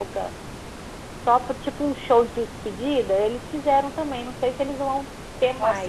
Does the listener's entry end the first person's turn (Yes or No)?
Yes